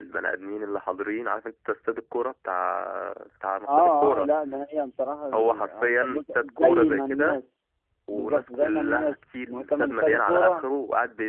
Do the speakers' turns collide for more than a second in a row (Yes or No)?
Yes